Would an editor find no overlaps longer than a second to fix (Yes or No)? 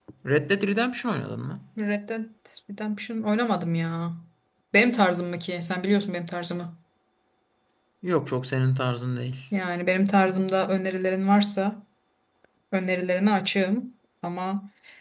Yes